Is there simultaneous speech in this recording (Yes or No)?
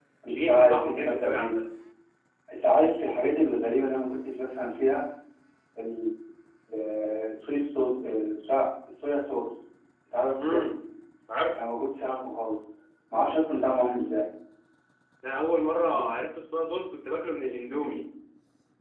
Yes